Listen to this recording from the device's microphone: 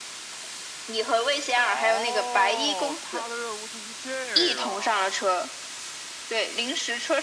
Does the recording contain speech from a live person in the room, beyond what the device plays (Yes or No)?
Yes